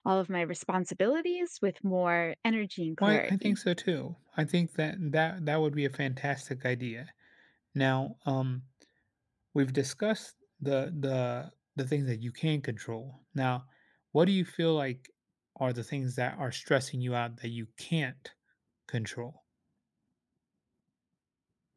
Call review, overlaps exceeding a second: none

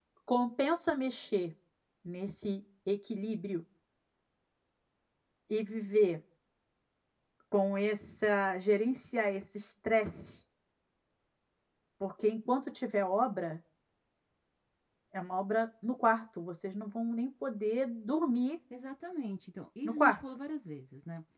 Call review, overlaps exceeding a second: none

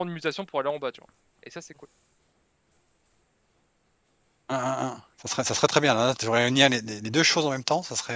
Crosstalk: none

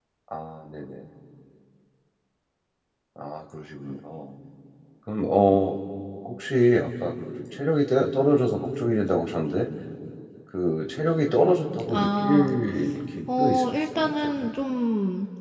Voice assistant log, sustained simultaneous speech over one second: present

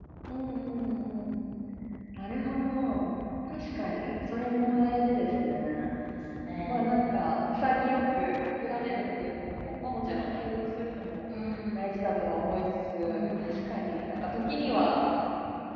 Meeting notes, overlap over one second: none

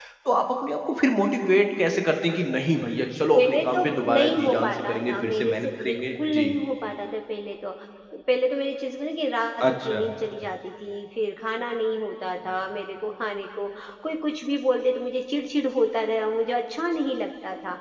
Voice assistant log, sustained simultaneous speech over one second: present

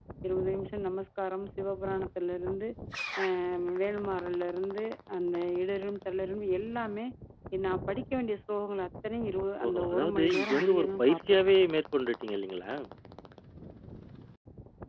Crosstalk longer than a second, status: present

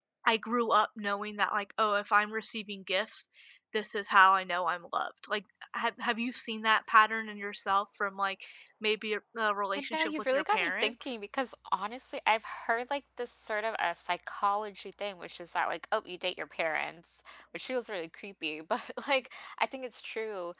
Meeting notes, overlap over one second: present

